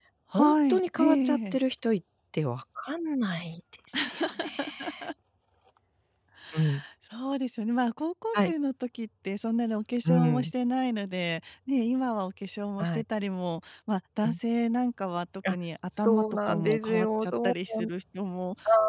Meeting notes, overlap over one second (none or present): present